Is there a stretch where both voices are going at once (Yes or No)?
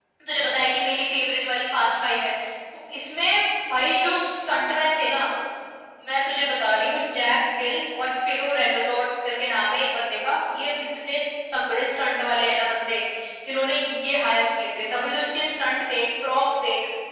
No